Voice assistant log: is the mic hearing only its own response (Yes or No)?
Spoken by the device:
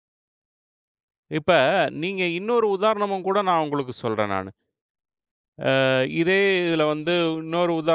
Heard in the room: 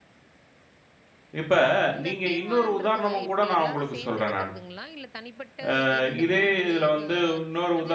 No